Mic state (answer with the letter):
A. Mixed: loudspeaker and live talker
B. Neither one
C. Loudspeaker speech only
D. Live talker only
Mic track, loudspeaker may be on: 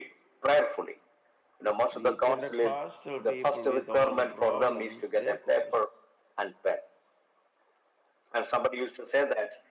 A